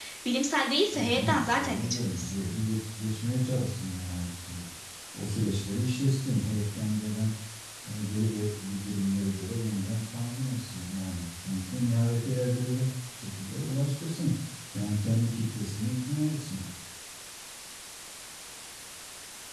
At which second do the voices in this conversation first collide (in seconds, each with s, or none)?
0.9 s